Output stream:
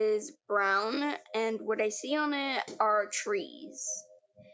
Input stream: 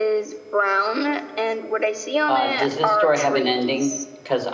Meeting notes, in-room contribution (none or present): present